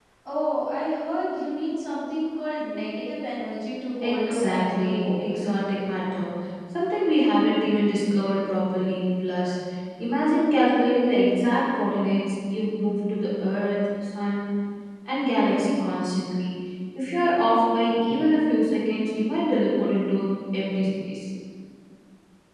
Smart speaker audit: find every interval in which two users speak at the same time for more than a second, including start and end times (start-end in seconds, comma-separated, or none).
4.0-5.5